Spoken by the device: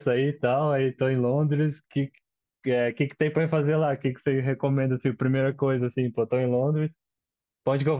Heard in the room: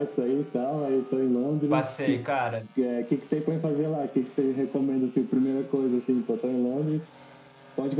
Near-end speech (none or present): present